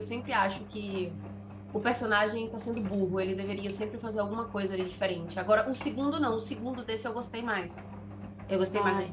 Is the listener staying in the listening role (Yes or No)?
Yes